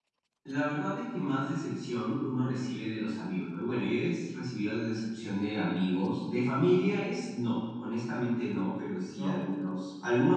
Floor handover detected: No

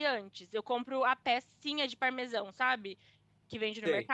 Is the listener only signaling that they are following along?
Yes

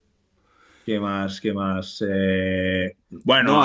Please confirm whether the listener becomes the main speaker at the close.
No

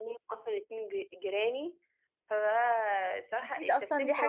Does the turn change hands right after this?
Yes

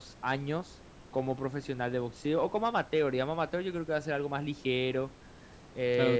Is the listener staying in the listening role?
No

